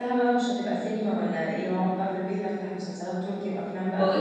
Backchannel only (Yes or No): No